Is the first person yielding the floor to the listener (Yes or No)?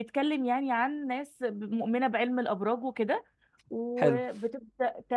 No